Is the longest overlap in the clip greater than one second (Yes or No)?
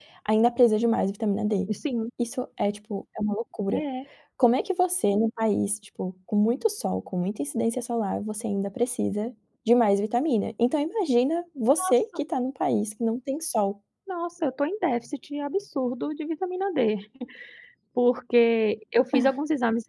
No